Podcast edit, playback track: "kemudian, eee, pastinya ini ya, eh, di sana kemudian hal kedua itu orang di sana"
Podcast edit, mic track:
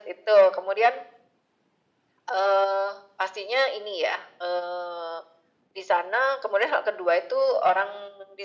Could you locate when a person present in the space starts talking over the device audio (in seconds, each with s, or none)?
none